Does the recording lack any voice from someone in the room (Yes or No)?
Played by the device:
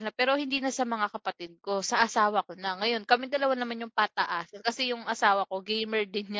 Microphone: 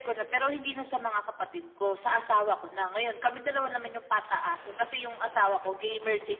Yes